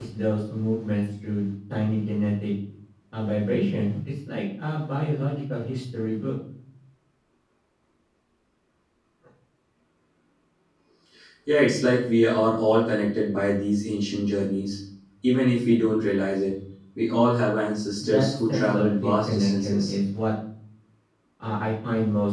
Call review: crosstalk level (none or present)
present